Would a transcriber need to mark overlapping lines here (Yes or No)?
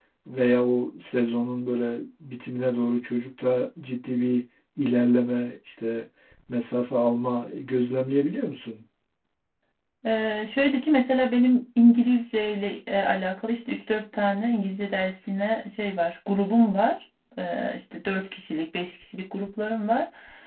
No